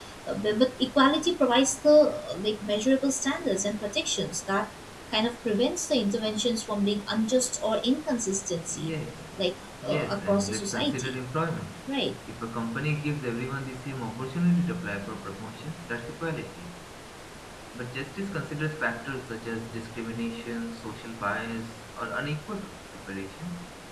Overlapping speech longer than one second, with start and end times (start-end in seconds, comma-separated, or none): 9.8-11.1